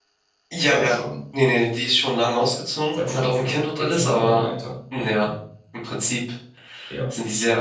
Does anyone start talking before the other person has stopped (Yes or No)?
Yes